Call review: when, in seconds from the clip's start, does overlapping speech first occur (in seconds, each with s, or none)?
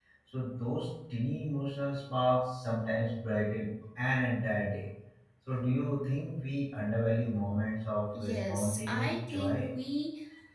8.2 s